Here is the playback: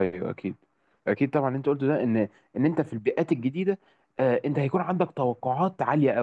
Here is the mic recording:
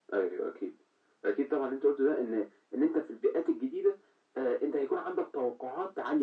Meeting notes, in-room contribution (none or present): none